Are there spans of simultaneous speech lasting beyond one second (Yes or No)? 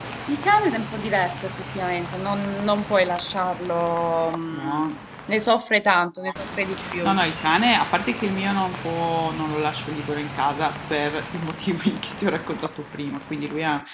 No